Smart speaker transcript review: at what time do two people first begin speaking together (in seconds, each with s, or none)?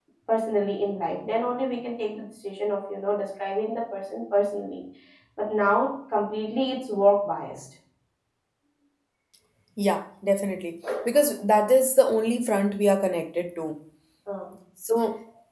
none